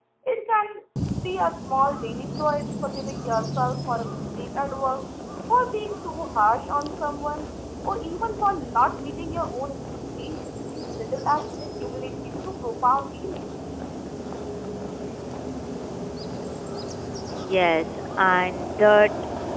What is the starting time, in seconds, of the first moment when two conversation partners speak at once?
none

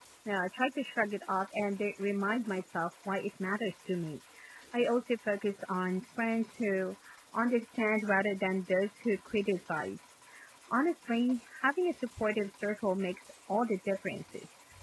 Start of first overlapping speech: none

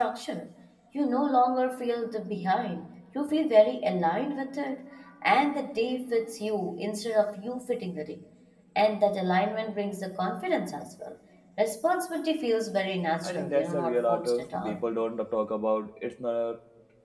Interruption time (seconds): 13.2 s

